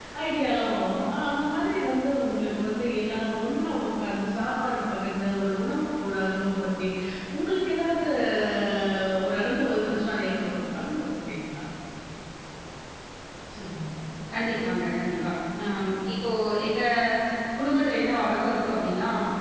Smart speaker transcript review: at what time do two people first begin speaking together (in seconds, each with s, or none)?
none